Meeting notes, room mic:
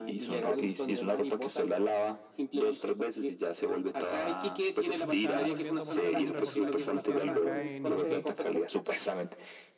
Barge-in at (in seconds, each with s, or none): 5.0 s